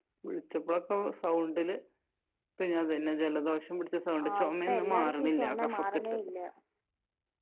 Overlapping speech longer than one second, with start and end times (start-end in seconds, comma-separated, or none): 4.3-5.9